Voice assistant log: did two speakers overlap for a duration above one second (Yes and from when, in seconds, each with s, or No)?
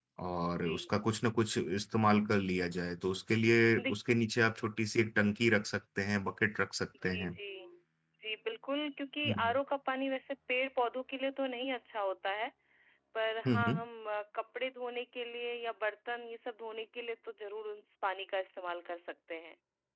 No